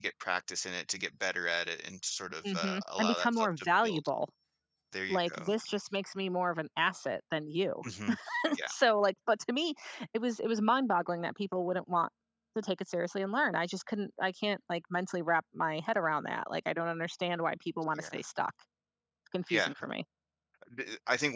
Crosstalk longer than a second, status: present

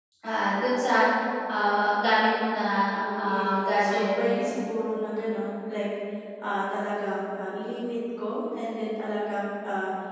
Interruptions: present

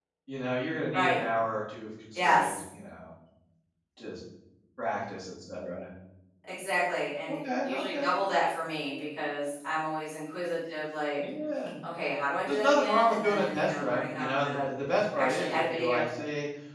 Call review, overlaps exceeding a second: present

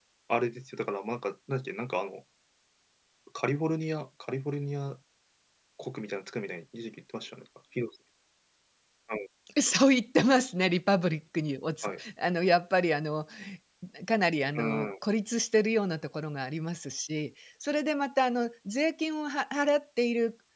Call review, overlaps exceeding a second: none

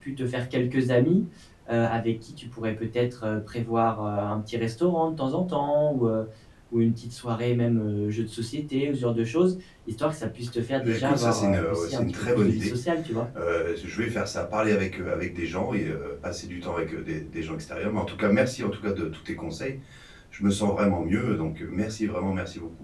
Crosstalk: present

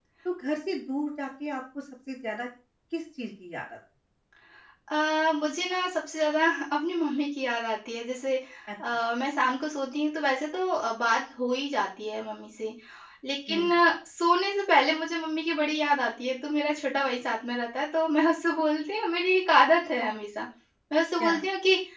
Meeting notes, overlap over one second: none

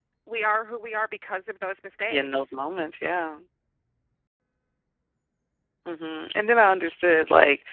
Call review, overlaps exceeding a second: none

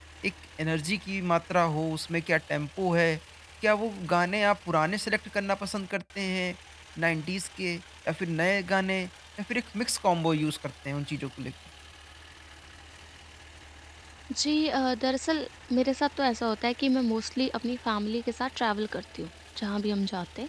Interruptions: none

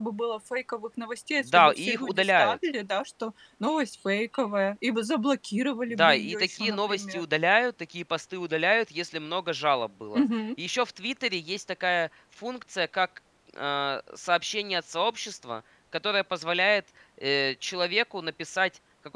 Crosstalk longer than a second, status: present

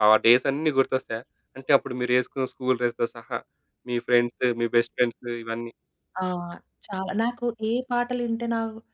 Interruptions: none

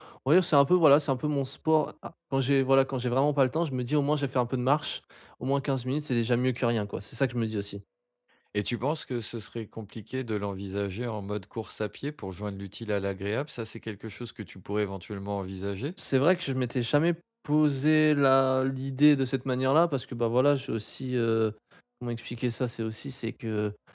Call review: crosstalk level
none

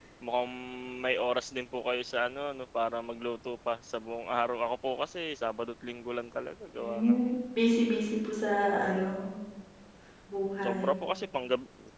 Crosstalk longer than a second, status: none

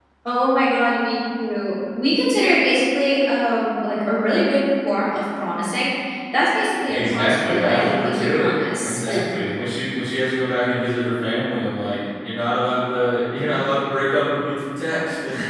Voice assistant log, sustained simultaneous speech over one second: present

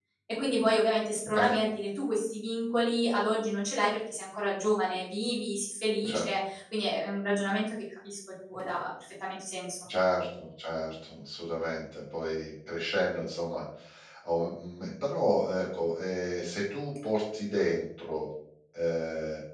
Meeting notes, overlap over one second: none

